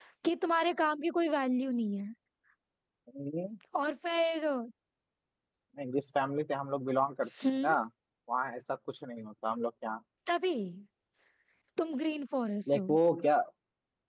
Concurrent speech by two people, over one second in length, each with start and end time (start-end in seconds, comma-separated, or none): none